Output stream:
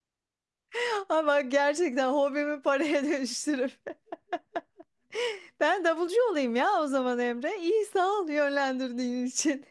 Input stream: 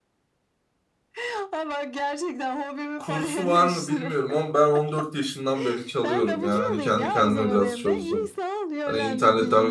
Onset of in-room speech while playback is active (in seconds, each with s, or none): 3.0 s